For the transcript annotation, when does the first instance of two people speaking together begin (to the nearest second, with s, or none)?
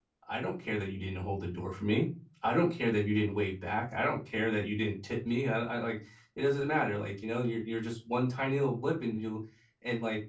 none